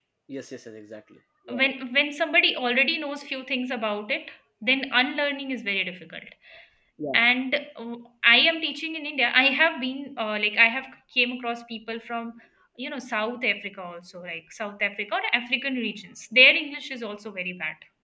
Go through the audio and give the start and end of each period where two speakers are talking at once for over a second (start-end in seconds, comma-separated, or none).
none